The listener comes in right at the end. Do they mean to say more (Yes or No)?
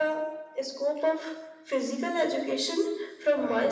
No